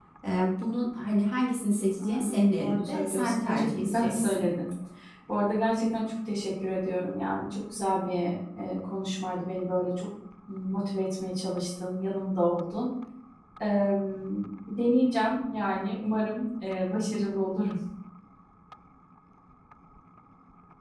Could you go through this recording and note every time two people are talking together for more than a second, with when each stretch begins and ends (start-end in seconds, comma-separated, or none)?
2.0-4.5